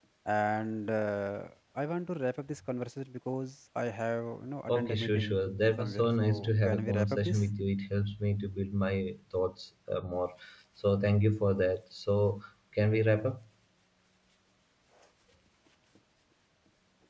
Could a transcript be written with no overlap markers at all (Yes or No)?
No